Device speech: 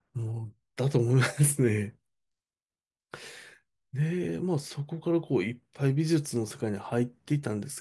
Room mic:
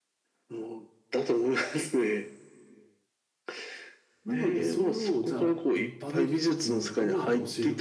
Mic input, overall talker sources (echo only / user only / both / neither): both